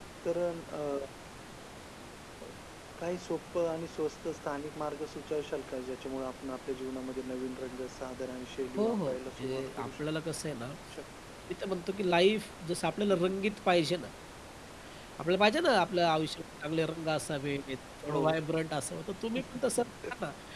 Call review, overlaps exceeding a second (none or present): present